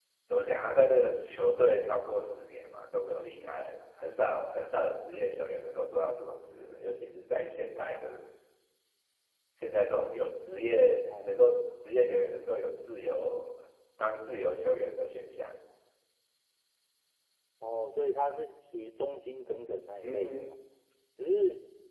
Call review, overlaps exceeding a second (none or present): none